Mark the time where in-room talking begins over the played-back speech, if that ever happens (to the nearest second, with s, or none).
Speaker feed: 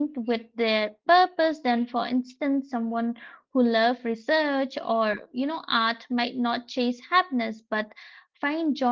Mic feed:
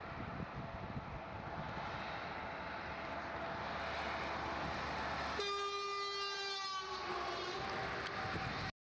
none